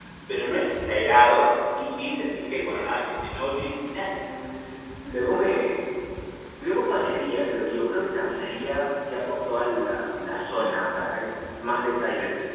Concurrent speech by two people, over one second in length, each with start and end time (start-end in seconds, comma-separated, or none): none